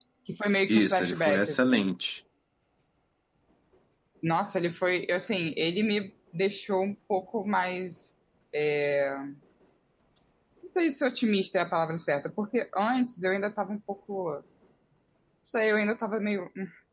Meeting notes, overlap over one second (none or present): present